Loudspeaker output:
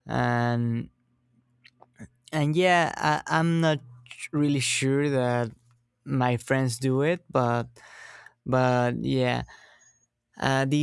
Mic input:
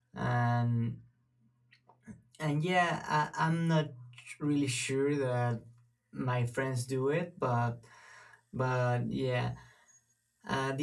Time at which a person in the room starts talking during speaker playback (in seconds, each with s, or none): none